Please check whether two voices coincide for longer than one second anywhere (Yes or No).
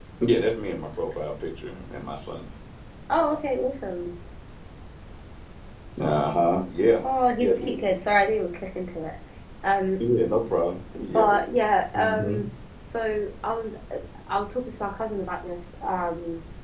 No